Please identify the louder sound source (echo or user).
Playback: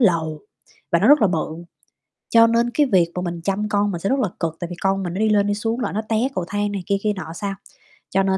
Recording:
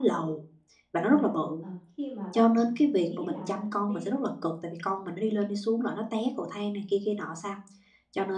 echo